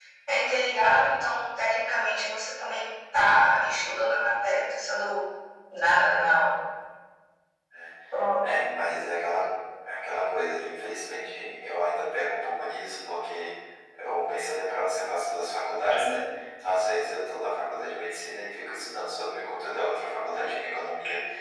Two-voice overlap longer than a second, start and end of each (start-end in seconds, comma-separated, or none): none